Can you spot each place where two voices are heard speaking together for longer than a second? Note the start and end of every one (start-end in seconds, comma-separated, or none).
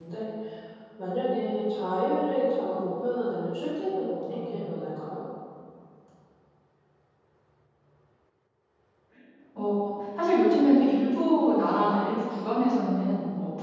none